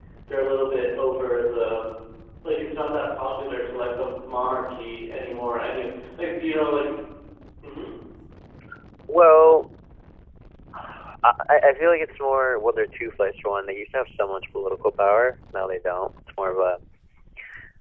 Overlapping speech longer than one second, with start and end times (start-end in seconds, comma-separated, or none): none